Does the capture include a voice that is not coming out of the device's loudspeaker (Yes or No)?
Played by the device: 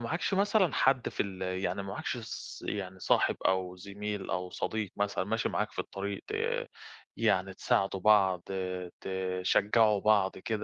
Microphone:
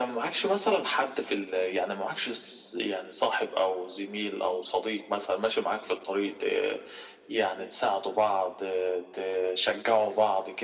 No